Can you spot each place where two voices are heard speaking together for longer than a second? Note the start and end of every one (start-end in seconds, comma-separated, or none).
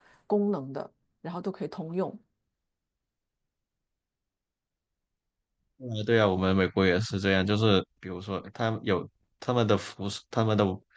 none